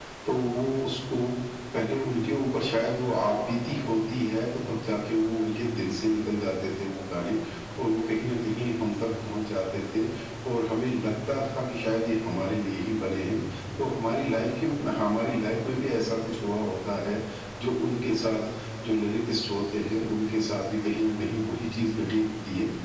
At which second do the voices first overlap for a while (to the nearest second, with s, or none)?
none